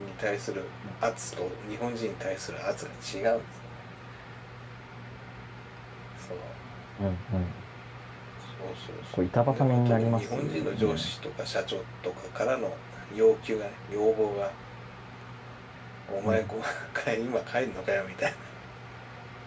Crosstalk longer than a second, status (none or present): present